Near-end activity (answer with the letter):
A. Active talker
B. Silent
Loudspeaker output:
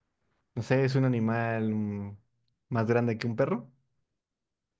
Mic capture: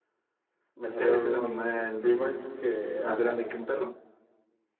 A